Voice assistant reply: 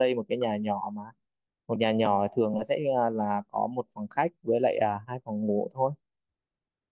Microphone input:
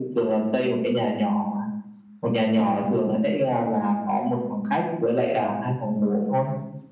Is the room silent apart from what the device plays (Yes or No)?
Yes